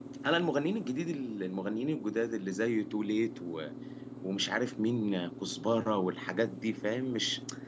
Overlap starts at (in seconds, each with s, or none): none